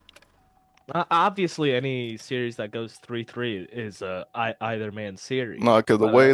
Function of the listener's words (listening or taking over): taking over